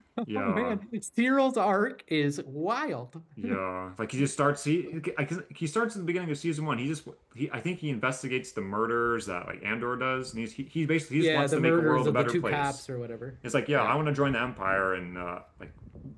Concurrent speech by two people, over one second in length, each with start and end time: 11.2-12.8

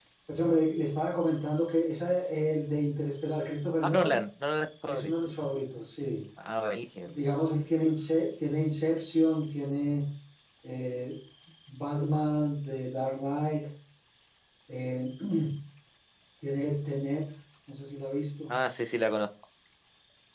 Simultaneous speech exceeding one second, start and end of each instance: none

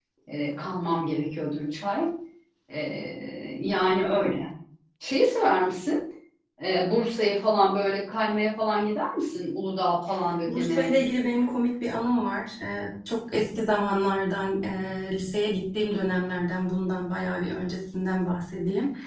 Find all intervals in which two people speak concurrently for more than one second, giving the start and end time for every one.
none

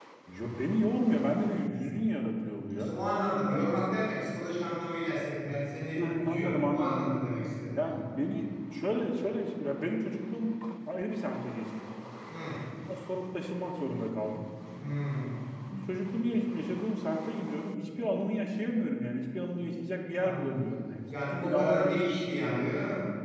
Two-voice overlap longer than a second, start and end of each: 6.0-7.2, 21.1-22.6

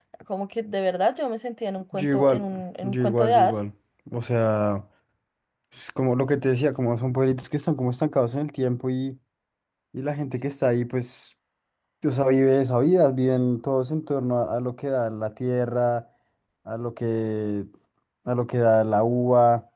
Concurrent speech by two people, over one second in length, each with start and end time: 1.9-3.6

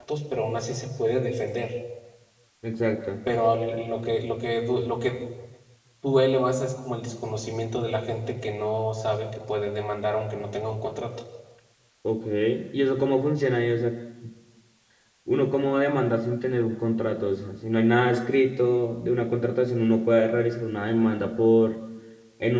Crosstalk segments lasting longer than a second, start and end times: none

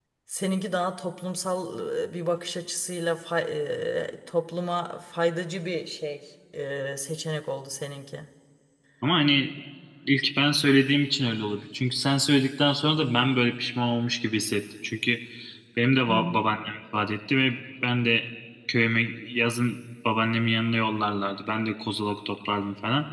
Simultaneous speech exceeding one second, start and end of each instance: none

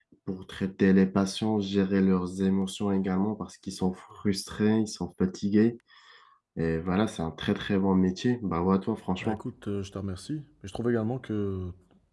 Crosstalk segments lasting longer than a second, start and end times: none

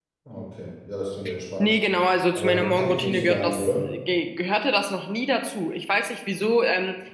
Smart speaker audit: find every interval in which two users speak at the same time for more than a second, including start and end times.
2.3-3.9

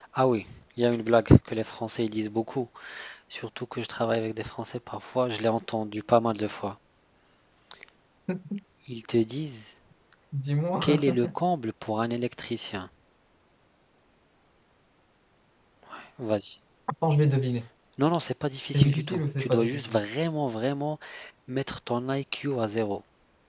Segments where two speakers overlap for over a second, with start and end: 18.7-20.0

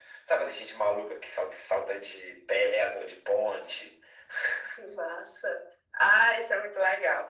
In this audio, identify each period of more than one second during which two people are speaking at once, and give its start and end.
none

